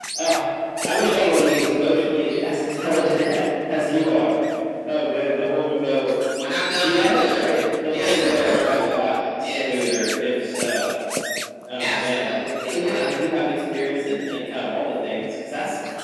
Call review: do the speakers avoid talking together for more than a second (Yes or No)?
No